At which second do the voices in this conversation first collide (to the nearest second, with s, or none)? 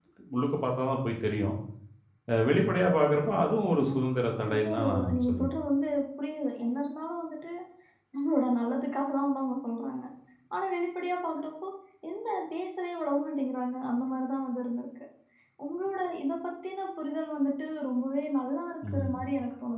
4 s